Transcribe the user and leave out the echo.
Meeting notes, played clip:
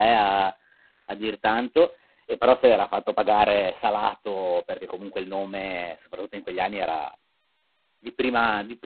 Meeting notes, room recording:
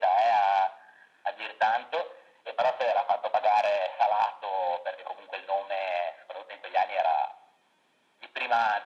none

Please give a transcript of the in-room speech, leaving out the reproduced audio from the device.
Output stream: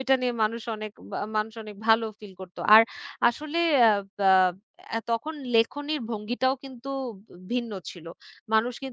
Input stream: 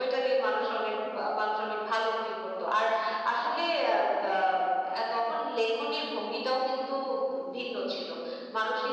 none

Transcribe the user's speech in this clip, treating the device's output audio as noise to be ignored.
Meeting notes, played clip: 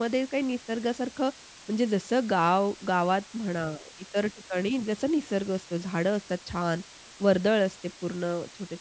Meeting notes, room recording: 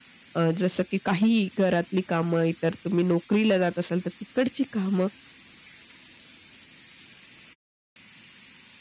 अ, जसं की काही घरातली कामं, इतर तुम्ही नोकरीला जात असाल, तर तिकडची कामं

